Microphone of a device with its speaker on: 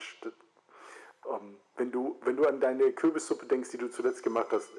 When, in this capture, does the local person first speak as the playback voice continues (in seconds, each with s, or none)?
none